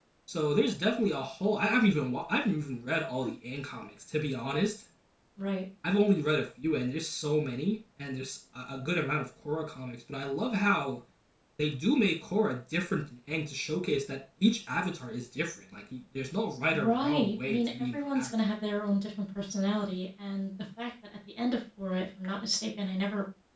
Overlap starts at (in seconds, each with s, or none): 16.7 s